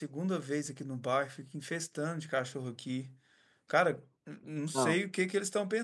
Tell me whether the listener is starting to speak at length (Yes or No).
No